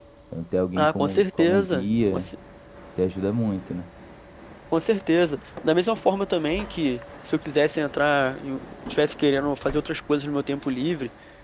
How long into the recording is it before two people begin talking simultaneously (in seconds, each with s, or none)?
0.8 s